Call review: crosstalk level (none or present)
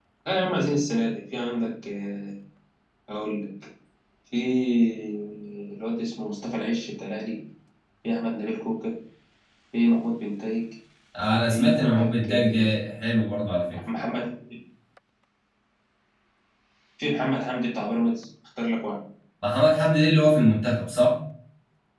present